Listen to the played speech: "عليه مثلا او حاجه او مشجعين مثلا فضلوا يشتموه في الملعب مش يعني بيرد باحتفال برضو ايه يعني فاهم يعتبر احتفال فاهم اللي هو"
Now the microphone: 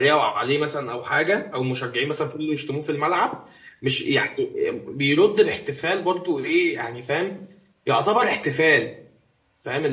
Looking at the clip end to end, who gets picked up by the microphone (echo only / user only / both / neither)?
echo only